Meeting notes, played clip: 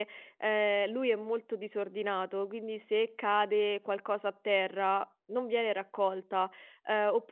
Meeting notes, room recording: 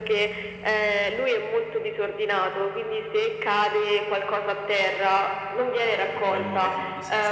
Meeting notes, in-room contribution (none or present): present